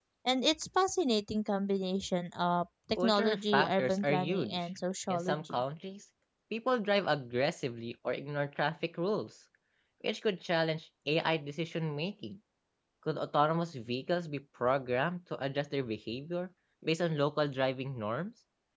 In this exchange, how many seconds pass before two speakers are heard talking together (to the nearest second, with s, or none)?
3 s